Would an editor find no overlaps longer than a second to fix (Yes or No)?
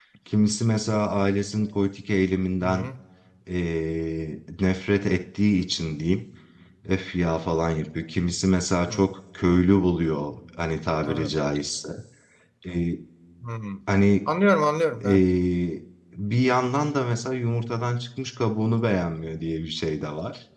Yes